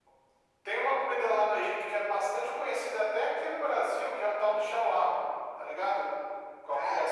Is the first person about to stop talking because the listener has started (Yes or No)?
Yes